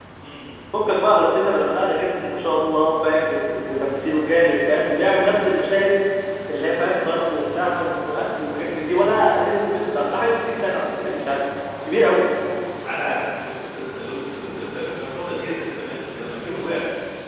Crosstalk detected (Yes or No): No